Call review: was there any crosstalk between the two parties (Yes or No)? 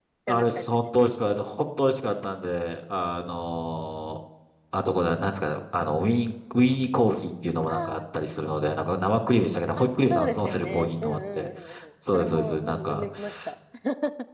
Yes